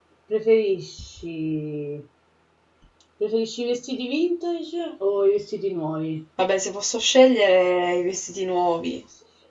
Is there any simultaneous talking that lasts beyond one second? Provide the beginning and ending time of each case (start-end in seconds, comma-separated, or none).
none